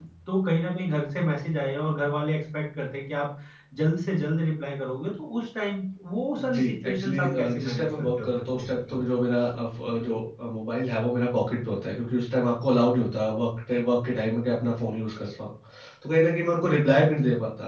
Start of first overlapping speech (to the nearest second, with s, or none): 6 s